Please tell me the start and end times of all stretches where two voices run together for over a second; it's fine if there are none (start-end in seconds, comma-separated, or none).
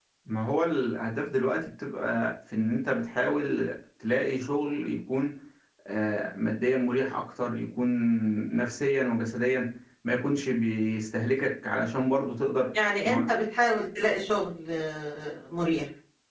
none